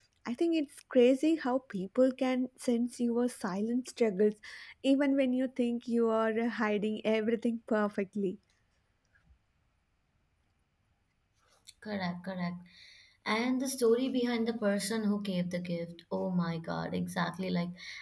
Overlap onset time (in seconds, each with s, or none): none